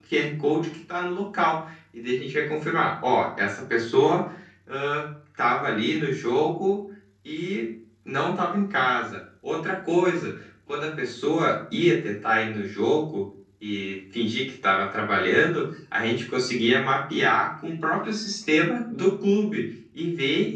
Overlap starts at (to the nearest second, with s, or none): none